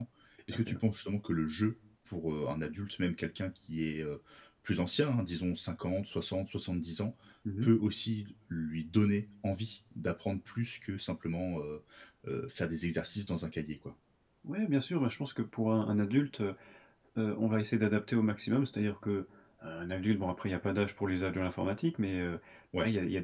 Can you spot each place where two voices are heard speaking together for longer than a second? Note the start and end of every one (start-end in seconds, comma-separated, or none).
none